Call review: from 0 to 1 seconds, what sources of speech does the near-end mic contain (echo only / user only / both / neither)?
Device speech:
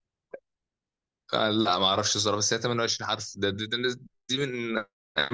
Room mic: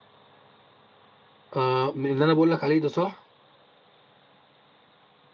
neither